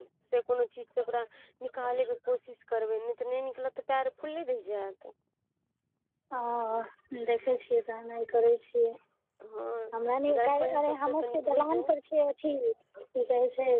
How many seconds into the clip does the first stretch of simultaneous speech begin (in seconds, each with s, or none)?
10.3 s